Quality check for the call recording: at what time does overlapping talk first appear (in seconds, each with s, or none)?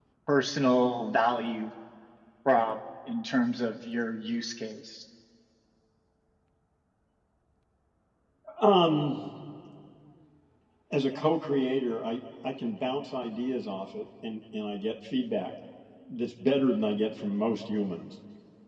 none